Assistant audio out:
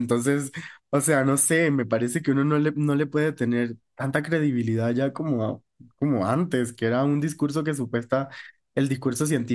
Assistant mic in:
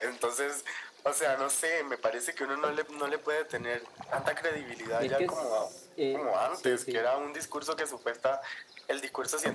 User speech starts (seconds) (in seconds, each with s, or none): 5.0 s